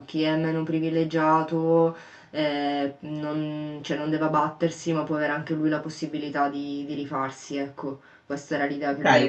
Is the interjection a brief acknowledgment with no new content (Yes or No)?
No